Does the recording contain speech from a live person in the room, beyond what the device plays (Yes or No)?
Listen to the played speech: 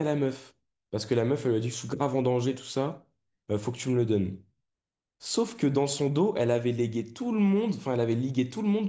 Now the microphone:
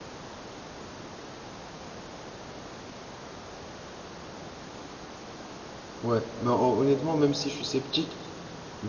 Yes